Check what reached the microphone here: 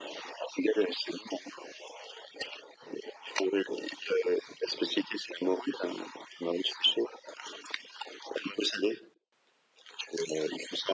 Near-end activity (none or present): none